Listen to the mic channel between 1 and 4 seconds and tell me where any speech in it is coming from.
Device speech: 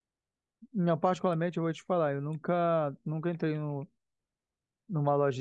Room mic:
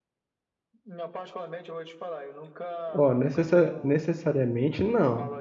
both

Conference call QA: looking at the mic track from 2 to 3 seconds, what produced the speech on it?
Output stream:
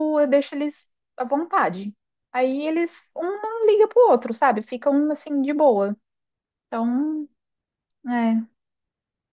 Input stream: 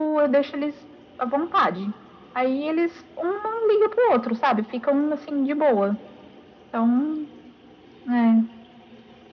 echo only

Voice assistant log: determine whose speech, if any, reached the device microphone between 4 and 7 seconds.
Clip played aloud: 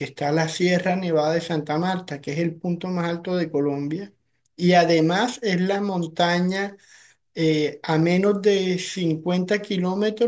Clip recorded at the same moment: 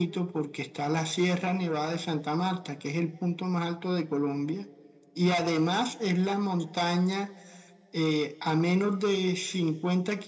echo only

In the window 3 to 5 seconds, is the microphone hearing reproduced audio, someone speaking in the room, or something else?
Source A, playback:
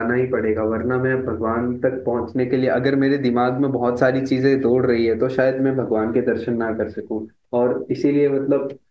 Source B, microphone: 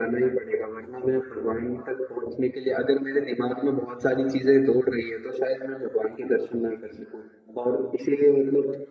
echo only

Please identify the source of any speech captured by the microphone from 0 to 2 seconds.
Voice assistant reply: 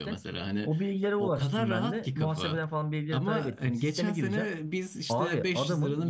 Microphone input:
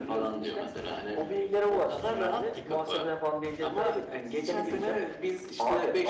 echo only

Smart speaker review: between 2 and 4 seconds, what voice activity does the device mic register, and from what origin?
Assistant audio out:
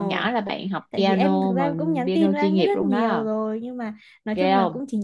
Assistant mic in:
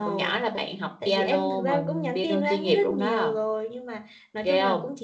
echo only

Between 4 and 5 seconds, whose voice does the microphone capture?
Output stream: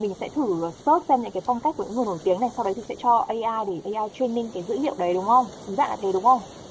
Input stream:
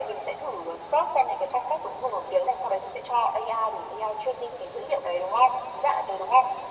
echo only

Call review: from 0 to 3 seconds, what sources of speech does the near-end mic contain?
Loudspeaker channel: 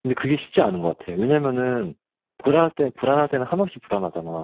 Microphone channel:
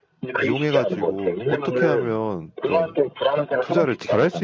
both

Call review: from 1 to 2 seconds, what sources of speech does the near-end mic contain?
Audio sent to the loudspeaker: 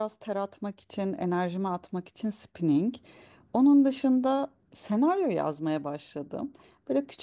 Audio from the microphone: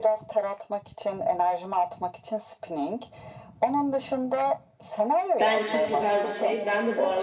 echo only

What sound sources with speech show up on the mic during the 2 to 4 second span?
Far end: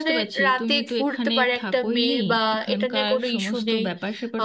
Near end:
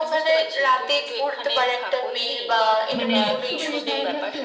both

